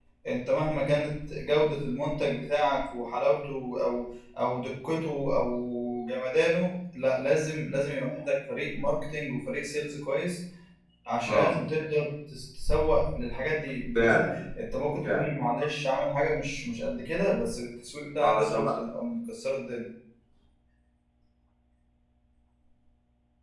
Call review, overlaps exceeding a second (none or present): none